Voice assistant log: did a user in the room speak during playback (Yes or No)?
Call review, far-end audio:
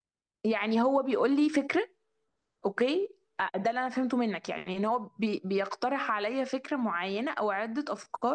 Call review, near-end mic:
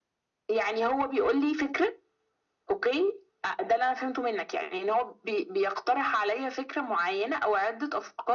No